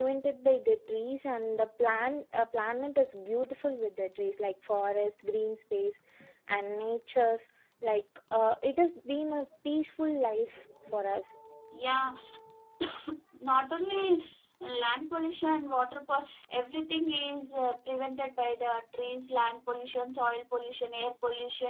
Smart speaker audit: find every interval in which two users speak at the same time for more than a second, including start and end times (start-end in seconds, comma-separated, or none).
none